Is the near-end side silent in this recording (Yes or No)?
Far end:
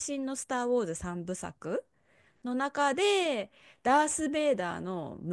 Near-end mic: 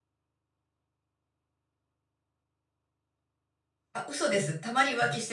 No